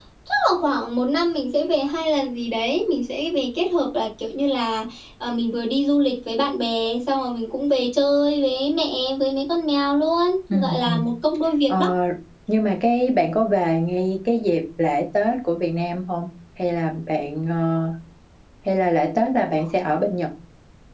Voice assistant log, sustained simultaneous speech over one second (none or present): none